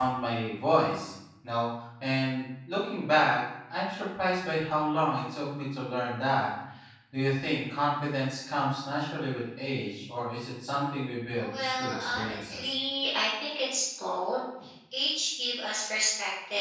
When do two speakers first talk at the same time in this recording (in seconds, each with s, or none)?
11.4 s